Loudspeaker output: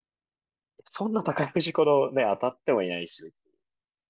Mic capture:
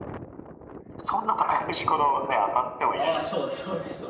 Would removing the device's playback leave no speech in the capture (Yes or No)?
No